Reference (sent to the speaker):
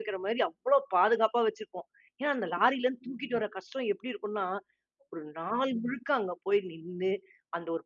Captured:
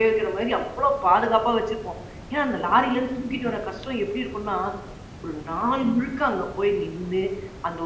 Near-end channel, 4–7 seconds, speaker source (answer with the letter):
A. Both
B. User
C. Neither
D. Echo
D